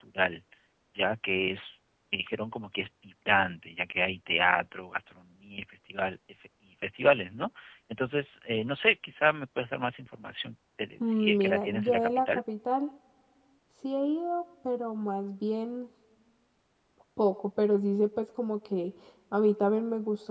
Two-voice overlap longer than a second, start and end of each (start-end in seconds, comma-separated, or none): 11.0-12.4